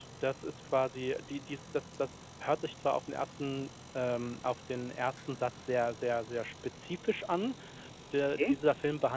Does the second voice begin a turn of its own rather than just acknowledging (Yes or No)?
No